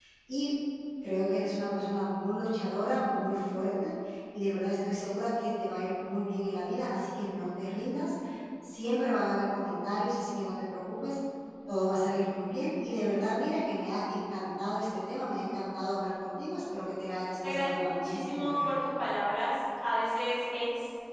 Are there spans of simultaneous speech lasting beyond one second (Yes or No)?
Yes